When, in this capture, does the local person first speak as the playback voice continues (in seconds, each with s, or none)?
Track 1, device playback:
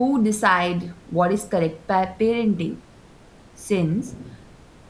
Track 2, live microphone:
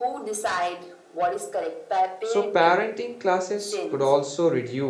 2.2 s